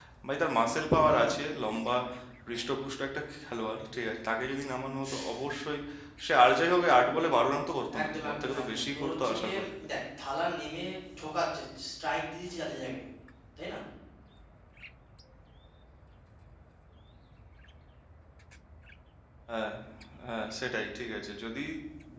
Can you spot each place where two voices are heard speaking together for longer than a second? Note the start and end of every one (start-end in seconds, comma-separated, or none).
8.0-9.7